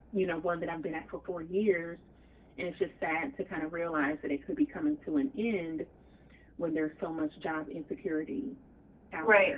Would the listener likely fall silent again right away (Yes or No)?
No